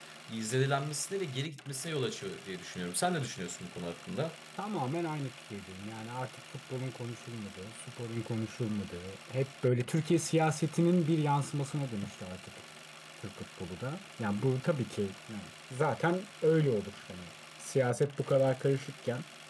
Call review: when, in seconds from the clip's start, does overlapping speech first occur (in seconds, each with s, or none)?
none